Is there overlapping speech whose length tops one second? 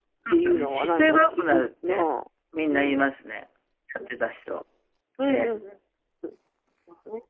Yes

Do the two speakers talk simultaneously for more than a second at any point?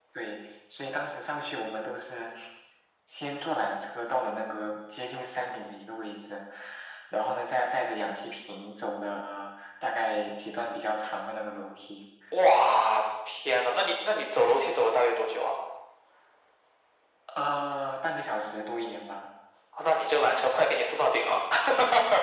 No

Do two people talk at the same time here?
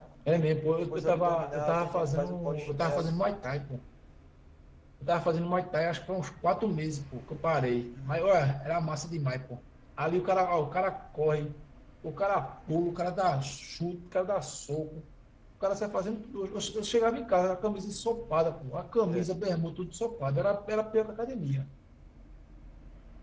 Yes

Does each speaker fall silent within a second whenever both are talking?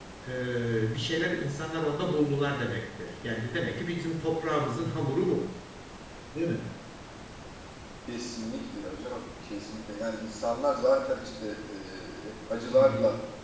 Yes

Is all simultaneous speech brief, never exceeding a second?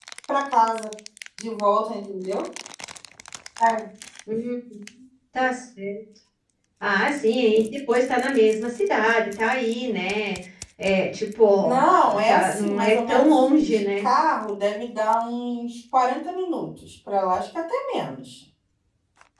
No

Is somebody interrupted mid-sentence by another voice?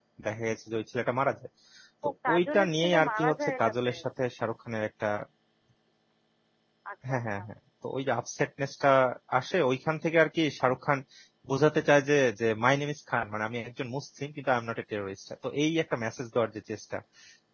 Yes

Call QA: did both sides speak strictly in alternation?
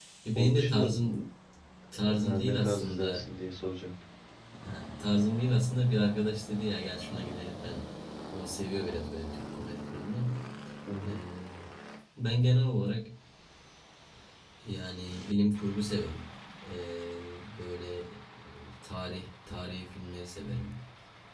No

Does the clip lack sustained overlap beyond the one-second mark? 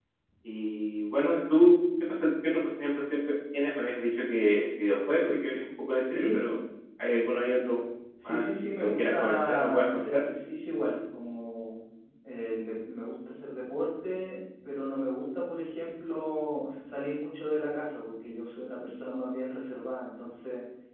No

